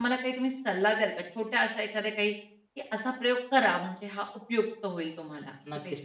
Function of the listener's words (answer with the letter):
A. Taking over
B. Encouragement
A